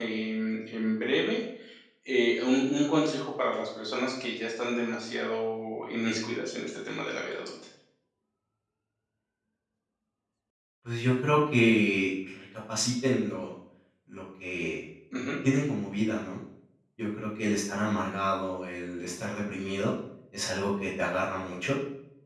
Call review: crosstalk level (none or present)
none